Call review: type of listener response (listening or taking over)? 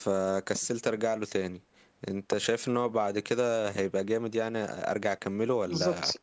taking over